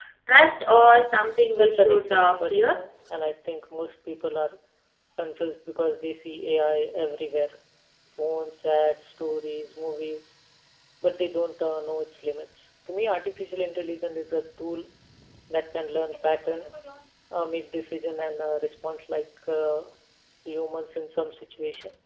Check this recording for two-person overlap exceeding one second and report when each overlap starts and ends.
1.5-2.8

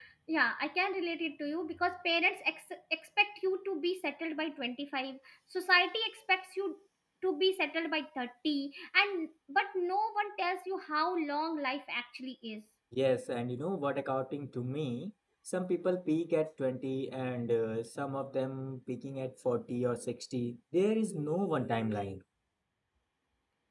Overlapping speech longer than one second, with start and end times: none

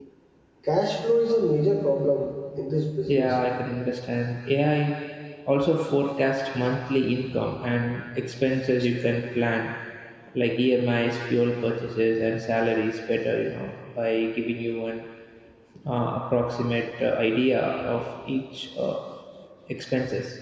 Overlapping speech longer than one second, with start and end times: none

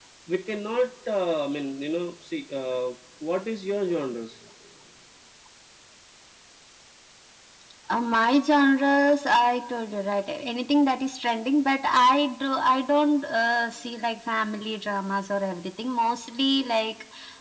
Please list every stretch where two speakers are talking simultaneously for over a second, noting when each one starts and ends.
none

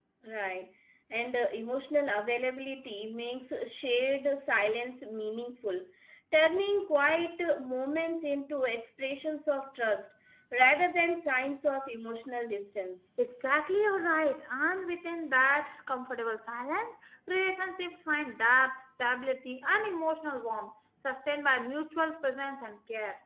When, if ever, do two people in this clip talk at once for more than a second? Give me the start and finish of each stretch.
none

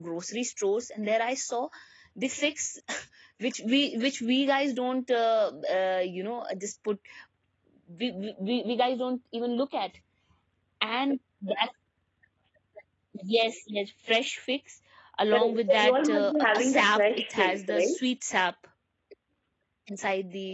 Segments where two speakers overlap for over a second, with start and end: 15.3-17.9

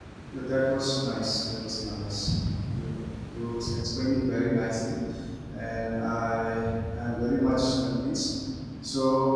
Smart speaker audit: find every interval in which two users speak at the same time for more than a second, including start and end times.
none

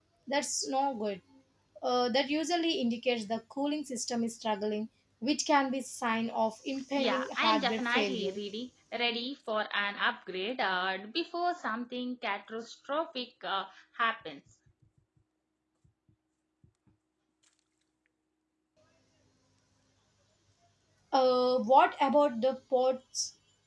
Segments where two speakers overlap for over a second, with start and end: 7.0-8.3

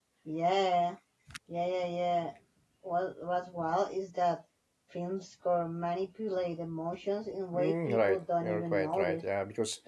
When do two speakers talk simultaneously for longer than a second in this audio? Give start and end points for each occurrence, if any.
7.5-9.2

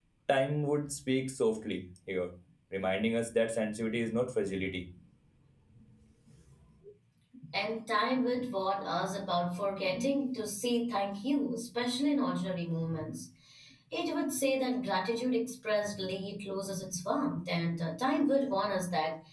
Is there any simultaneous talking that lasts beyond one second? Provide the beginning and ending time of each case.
none

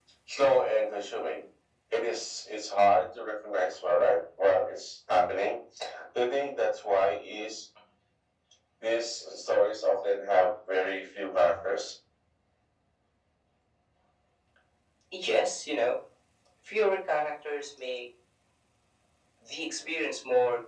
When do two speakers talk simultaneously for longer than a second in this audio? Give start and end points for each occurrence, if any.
none

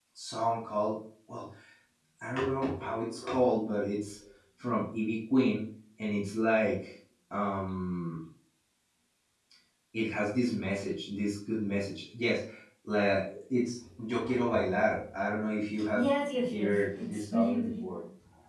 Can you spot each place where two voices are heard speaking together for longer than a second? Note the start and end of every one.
16.5-18.0

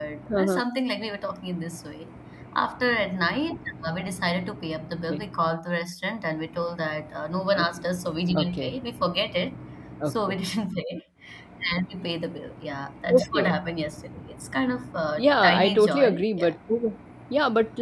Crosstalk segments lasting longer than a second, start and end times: 15.2-16.5

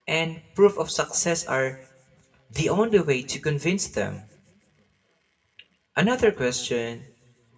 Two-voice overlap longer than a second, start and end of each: none

